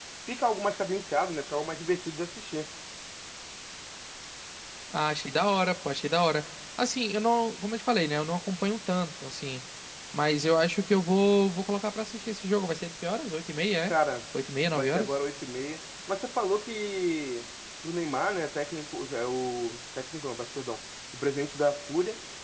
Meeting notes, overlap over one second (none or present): none